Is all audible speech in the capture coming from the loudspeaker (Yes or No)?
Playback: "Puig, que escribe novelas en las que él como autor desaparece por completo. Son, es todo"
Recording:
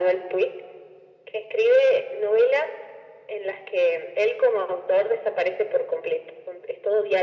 Yes